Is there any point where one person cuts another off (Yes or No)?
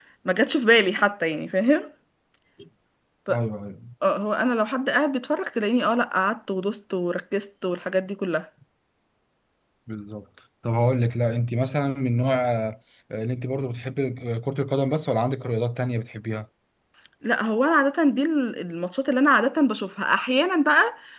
No